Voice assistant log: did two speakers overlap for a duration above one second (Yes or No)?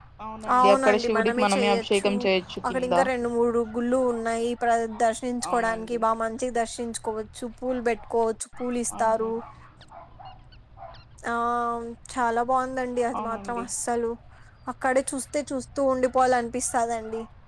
Yes